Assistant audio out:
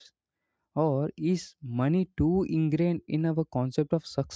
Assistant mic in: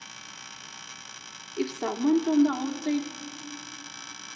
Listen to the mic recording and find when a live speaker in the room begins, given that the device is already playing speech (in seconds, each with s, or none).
1.5 s